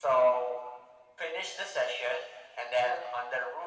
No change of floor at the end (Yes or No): Yes